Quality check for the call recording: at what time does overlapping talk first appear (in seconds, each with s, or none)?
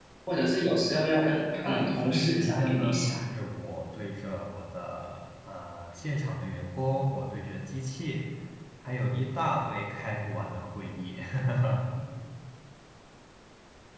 1.5 s